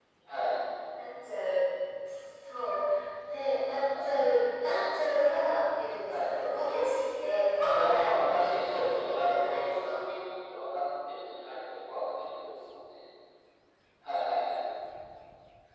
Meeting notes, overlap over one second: present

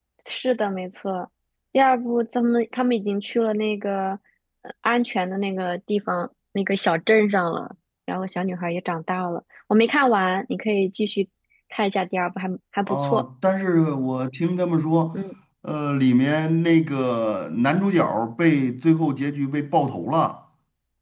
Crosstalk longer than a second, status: none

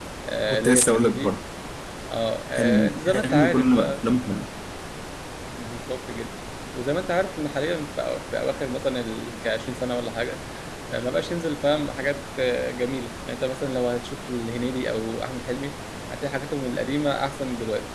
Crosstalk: present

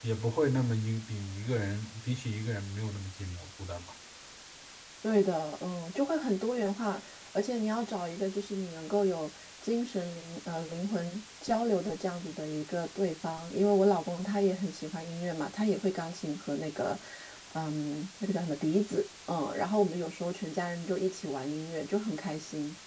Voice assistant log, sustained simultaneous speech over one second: none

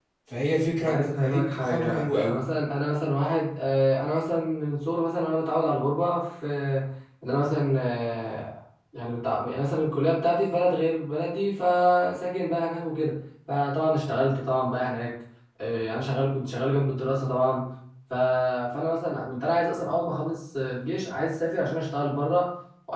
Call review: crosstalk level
present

